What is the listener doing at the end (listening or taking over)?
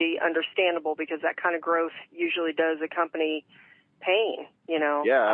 taking over